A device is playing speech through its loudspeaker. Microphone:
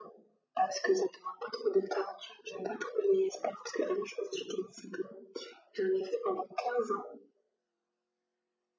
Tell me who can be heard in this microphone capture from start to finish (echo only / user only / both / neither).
echo only